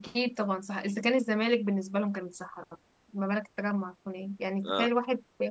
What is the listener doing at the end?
listening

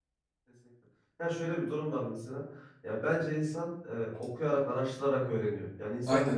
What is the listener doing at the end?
listening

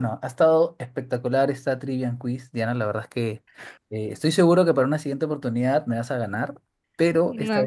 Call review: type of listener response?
taking over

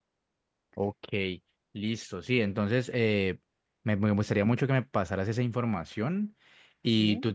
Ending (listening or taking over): listening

